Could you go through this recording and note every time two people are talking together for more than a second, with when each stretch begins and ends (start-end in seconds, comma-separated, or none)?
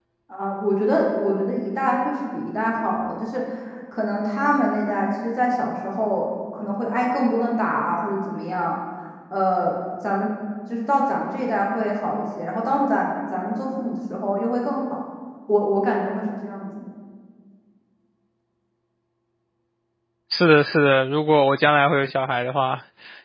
none